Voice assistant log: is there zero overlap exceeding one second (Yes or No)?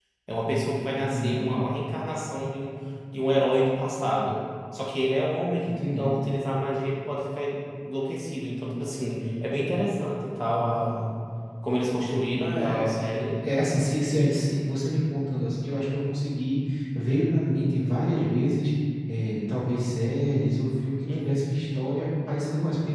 Yes